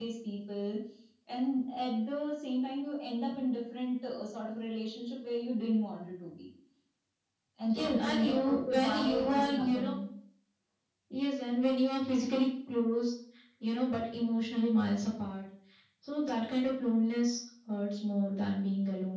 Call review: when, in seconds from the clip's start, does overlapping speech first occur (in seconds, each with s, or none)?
7.8 s